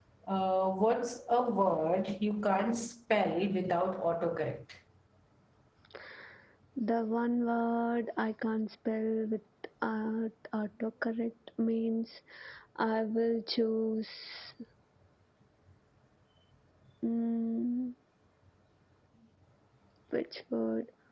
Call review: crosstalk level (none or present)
none